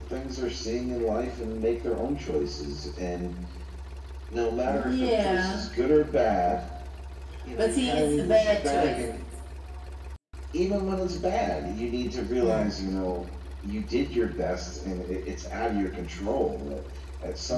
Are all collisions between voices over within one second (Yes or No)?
No